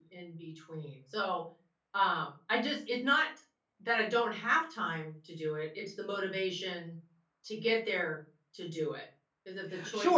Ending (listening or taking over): taking over